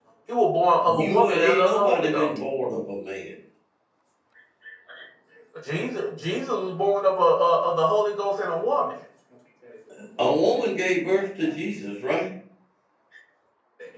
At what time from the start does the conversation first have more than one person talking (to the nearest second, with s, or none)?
1 s